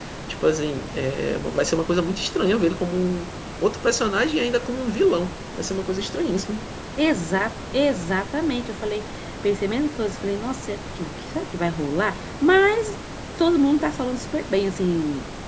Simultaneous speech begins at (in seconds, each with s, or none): none